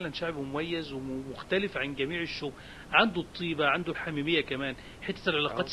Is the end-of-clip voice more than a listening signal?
No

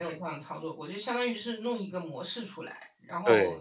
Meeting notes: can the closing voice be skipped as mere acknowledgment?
Yes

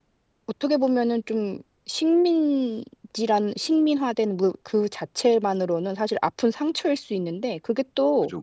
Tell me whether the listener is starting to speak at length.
No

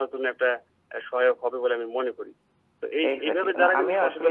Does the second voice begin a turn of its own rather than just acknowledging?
Yes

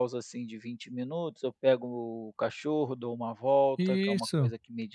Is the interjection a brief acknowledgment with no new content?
Yes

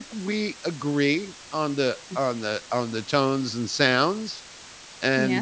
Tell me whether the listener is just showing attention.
Yes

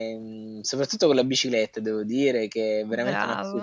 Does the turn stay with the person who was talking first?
Yes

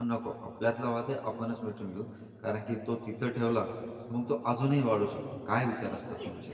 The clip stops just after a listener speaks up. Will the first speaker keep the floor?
No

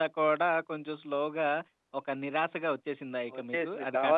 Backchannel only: No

